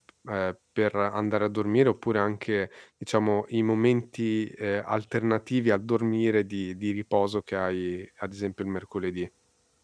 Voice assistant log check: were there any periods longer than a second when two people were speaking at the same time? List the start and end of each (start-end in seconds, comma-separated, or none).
none